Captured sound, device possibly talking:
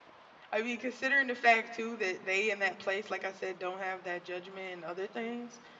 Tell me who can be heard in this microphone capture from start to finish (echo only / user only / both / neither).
user only